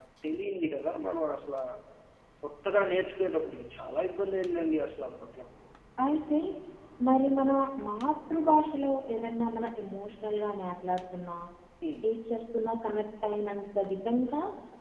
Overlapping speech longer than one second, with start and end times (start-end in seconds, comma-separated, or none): none